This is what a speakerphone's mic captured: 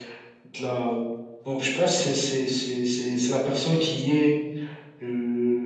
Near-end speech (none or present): none